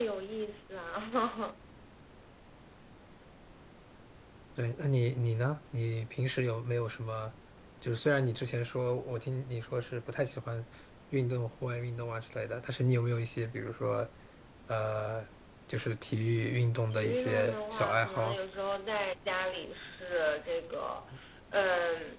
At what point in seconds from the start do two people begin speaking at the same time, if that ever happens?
16.9 s

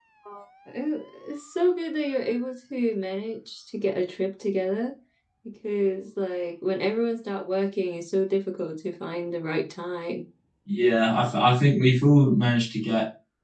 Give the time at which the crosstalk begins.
none

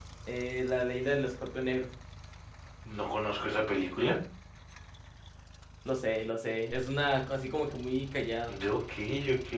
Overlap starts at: none

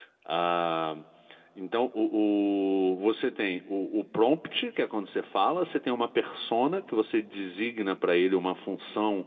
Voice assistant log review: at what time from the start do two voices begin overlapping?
none

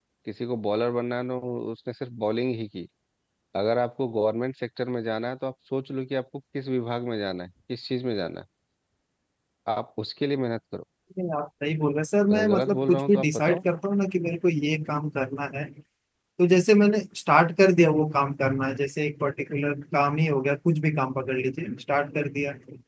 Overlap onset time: 12.3 s

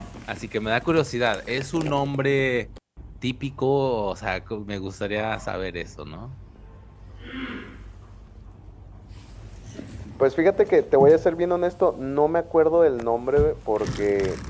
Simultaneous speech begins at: none

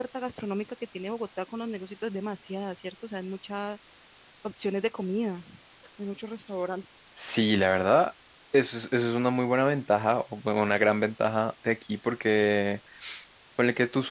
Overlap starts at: none

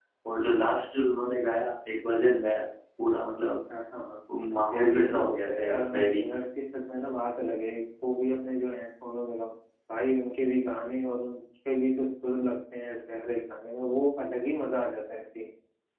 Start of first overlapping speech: 4.7 s

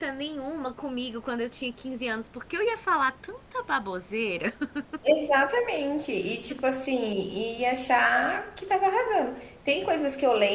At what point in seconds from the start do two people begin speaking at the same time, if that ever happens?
none

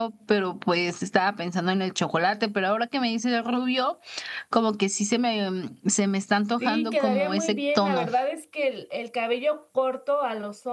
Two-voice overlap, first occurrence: 6.6 s

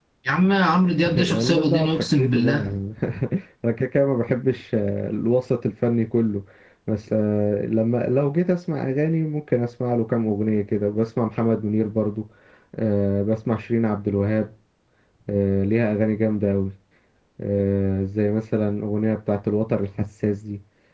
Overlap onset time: 1.2 s

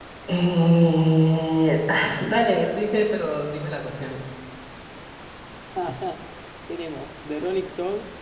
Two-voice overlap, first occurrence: none

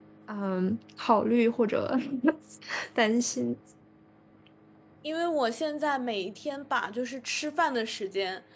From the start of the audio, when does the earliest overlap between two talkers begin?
none

